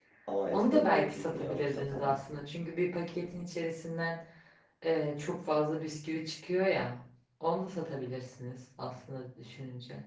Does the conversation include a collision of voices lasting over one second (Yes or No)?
Yes